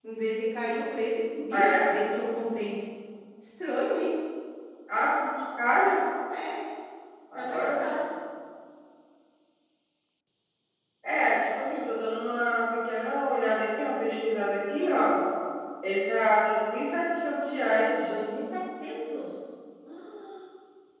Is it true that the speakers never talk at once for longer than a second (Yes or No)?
Yes